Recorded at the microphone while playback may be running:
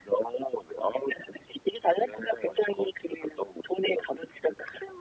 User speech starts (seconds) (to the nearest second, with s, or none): none